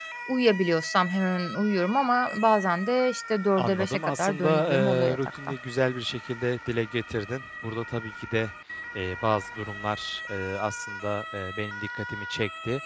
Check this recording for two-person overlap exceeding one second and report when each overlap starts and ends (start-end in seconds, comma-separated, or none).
3.6-5.5